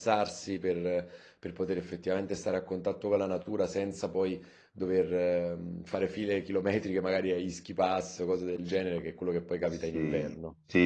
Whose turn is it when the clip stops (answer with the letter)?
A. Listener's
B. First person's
A